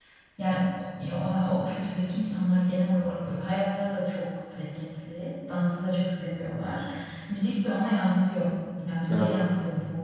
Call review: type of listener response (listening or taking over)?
listening